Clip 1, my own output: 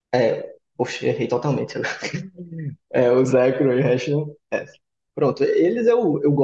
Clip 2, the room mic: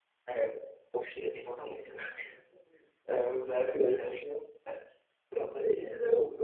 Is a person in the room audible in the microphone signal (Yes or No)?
No